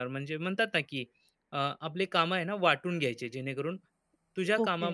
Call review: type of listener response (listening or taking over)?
taking over